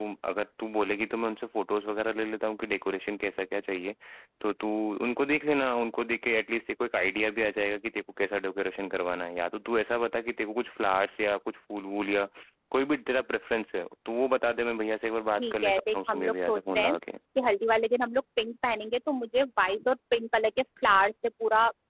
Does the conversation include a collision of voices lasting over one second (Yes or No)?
Yes